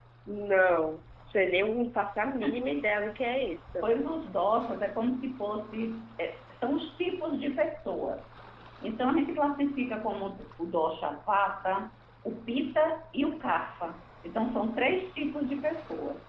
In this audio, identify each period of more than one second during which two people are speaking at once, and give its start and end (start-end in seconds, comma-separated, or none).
none